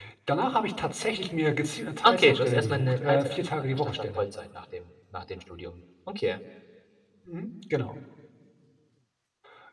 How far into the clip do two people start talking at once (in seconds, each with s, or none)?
2.0 s